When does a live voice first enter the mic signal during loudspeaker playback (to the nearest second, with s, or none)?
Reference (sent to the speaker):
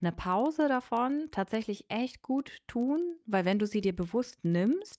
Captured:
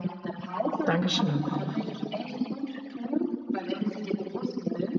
1 s